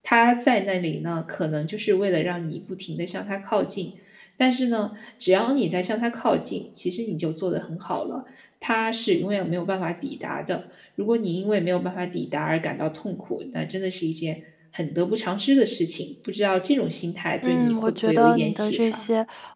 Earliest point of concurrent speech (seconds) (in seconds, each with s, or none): 17.4 s